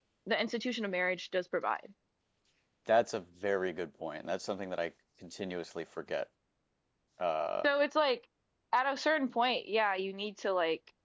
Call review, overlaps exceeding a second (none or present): none